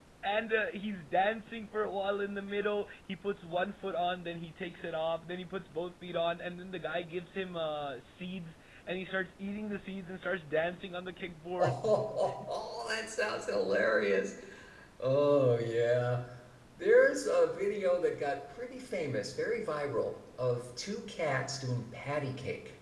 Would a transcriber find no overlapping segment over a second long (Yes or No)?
Yes